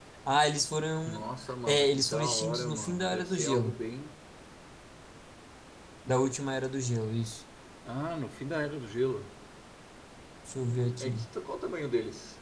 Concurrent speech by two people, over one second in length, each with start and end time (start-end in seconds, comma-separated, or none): 1.7-3.8